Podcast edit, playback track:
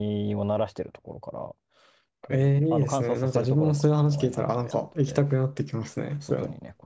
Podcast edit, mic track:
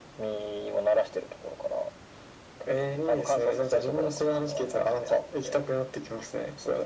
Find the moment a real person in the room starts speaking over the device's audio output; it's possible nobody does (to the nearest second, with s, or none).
none